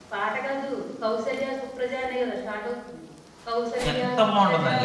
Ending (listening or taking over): listening